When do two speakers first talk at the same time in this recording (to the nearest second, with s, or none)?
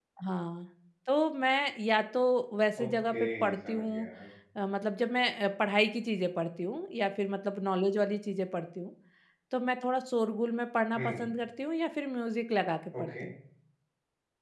3 s